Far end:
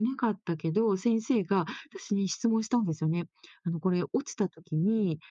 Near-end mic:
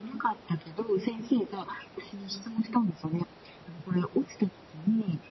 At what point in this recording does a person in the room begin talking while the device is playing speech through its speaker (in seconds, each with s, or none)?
none